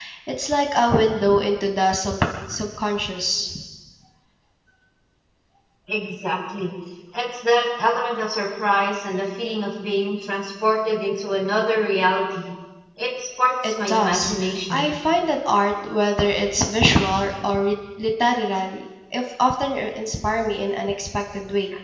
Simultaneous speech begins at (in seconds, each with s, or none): 13.6 s